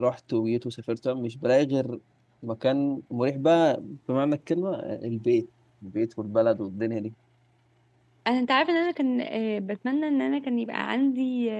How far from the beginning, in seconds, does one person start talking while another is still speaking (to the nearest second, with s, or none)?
none